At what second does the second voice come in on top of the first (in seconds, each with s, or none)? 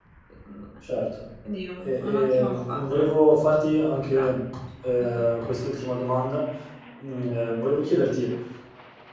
1.8 s